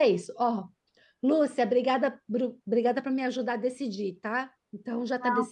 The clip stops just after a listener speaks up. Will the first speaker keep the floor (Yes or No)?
No